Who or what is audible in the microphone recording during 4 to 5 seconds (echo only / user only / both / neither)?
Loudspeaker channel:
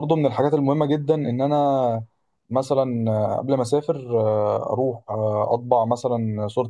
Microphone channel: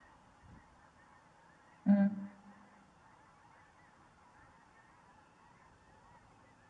neither